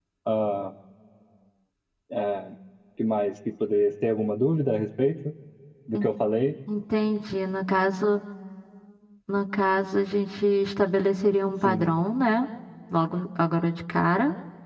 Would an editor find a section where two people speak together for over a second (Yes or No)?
No